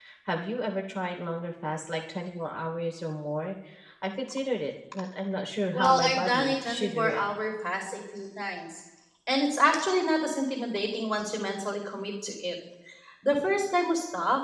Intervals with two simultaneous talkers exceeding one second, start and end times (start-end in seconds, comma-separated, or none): 5.7-7.3